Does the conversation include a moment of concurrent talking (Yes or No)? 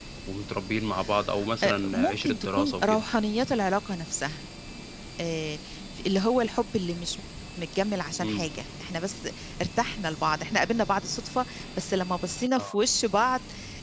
Yes